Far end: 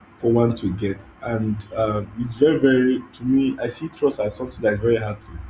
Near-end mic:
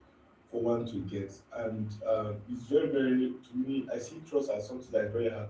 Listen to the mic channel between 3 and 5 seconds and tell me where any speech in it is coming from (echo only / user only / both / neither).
echo only